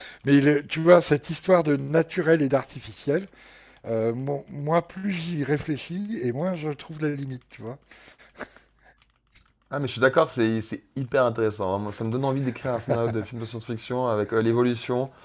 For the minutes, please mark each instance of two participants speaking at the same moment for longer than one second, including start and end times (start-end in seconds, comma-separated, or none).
none